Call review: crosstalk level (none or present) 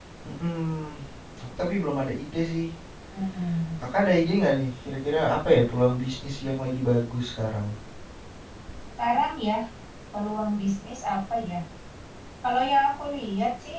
none